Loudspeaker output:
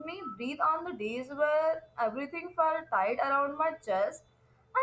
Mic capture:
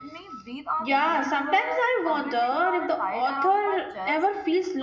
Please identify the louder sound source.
user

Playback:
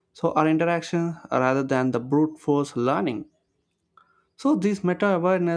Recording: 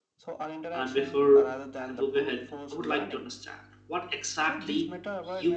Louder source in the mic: user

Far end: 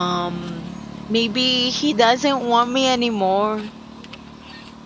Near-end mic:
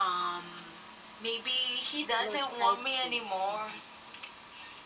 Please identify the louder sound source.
echo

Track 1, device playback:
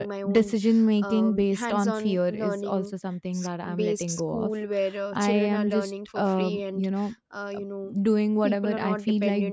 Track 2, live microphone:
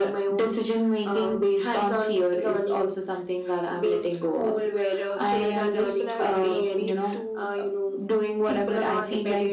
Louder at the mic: echo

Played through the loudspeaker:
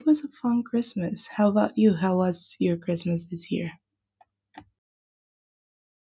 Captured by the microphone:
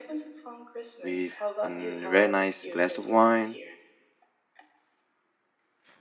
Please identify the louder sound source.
user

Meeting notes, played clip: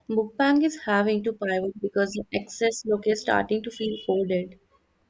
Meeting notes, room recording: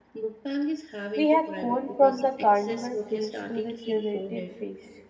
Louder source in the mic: user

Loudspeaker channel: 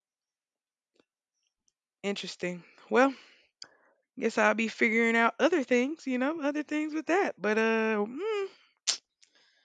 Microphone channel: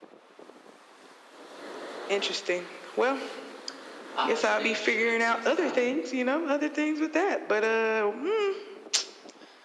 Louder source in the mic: echo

